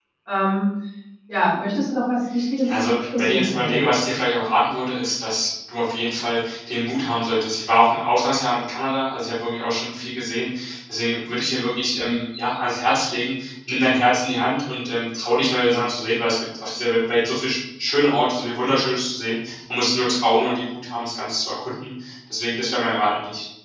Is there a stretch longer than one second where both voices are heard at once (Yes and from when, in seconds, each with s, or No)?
Yes, from 2.6 s